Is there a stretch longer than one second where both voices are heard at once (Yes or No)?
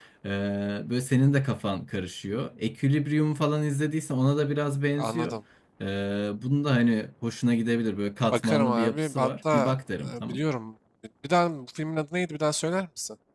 Yes